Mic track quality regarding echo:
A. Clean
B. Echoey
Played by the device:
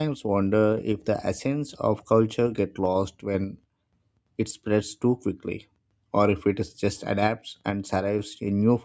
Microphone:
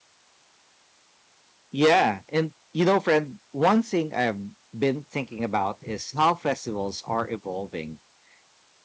A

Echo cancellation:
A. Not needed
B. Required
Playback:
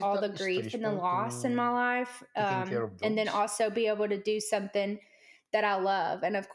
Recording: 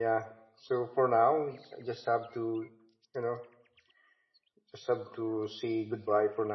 A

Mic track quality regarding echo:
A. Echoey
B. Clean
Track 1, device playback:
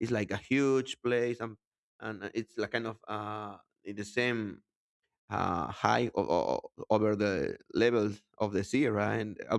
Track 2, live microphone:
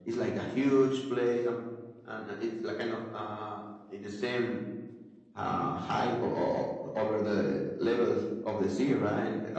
A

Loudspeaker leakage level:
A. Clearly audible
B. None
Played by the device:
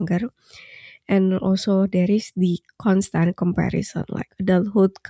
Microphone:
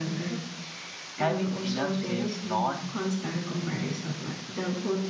A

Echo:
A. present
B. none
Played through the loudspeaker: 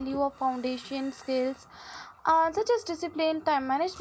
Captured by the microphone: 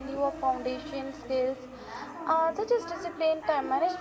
A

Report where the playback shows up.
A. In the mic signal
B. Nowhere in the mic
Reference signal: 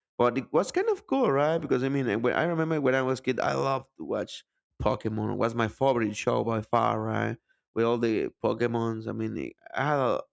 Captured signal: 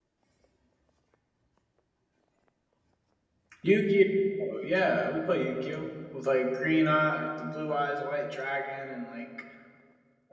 B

